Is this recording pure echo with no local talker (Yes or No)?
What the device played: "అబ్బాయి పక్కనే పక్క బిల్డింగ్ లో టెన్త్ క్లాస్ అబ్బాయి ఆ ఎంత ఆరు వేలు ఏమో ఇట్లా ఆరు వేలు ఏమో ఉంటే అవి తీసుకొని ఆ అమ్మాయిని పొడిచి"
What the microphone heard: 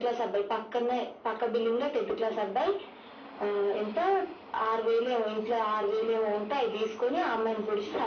Yes